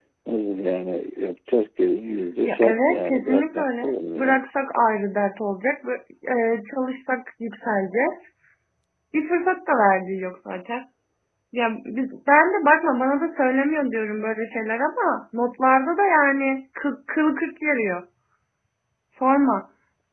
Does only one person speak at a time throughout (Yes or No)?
No